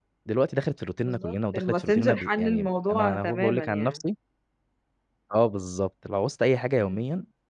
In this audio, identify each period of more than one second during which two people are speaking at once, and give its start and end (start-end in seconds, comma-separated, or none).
1.0-4.0